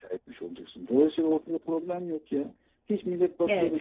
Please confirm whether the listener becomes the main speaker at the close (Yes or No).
Yes